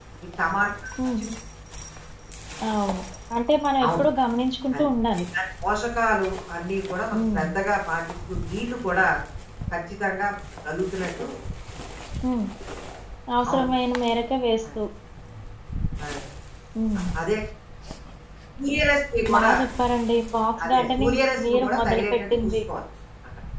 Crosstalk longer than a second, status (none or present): present